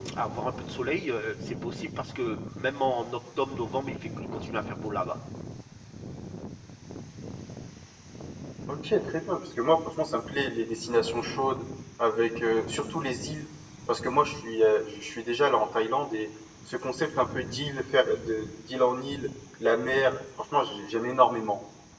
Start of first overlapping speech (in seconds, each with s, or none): none